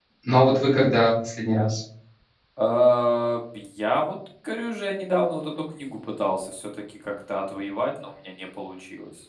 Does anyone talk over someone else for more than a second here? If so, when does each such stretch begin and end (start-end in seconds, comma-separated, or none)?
none